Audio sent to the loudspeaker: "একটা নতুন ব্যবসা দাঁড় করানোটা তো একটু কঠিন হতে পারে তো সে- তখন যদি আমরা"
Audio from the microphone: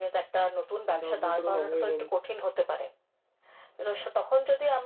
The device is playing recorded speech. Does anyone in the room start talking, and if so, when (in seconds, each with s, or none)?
0.9 s